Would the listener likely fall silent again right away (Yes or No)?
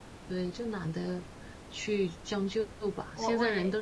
No